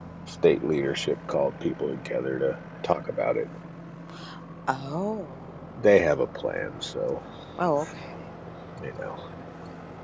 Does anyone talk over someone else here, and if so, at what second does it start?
none

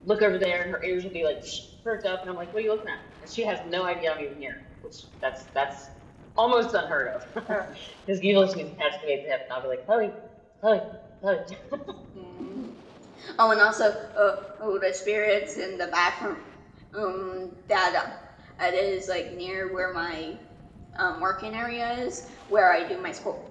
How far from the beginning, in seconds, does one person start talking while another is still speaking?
none

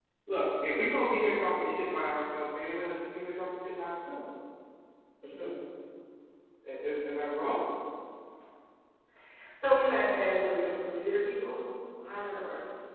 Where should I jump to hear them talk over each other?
none

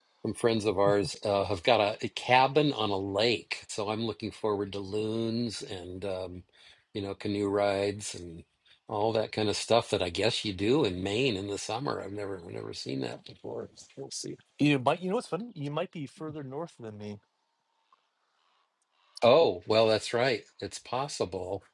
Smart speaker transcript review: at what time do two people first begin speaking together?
none

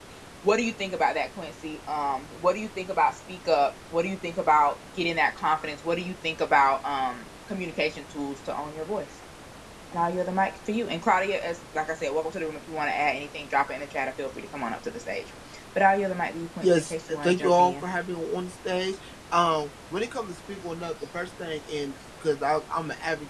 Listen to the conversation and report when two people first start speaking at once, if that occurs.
16.6 s

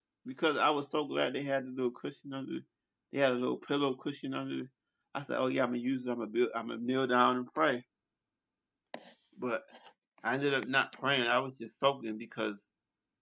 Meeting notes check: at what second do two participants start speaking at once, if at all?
none

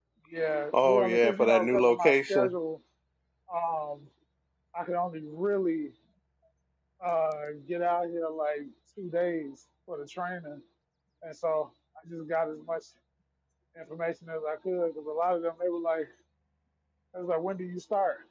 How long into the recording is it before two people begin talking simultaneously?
0.8 s

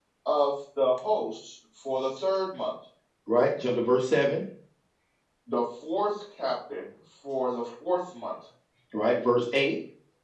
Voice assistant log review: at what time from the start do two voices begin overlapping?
none

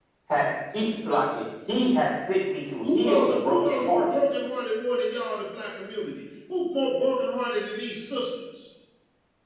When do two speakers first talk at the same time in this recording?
2.8 s

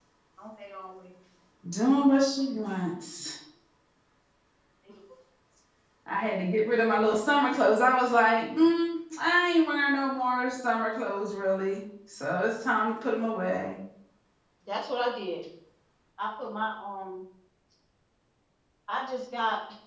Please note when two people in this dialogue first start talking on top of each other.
none

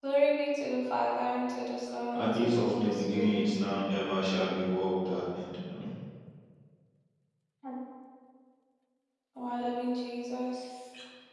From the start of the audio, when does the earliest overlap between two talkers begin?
2.1 s

